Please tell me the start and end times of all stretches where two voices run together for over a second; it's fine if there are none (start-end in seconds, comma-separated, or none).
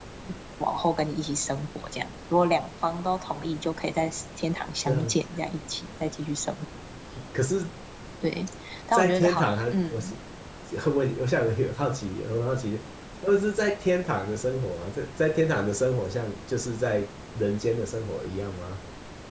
8.9-10.1